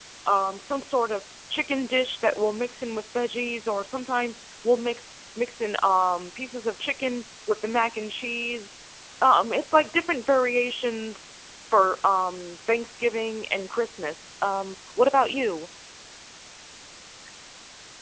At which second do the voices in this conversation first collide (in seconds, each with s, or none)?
none